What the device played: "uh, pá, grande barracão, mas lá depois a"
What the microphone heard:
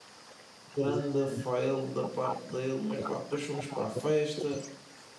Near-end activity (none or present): present